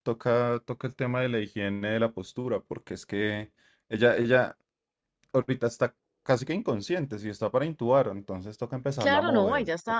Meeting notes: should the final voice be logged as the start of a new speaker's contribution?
Yes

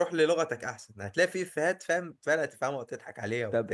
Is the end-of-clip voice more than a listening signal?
Yes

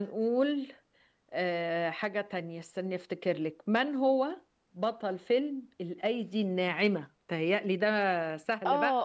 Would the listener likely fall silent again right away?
No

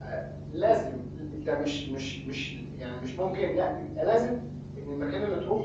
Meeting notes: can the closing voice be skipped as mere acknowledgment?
Yes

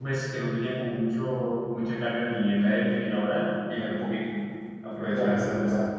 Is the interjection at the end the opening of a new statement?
Yes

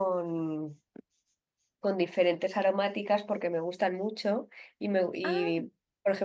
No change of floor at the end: Yes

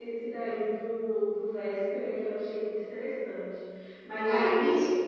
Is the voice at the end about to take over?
No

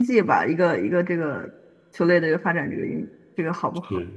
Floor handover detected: Yes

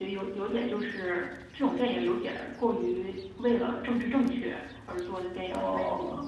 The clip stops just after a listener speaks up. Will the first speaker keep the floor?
Yes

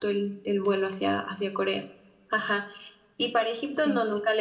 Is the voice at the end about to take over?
No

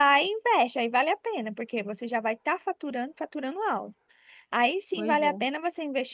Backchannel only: Yes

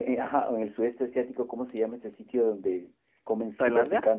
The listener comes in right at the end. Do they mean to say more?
No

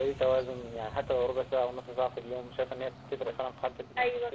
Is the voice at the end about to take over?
Yes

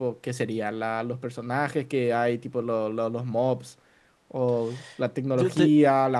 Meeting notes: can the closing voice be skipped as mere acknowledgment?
Yes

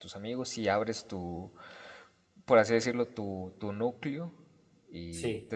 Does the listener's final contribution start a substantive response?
No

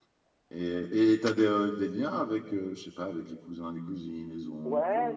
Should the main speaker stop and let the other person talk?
Yes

